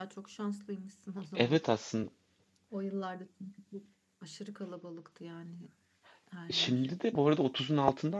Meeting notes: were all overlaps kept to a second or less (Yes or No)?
Yes